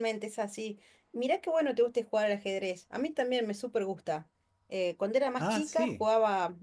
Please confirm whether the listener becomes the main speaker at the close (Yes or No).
No